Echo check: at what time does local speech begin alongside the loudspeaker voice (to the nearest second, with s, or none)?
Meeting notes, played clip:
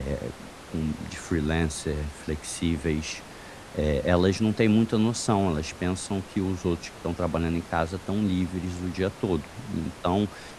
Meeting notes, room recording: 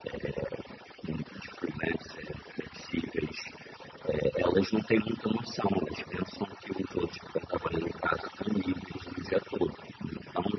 none